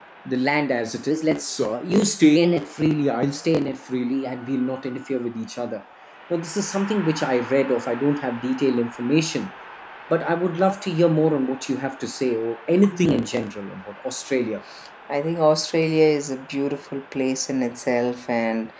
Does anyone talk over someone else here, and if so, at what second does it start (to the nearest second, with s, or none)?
none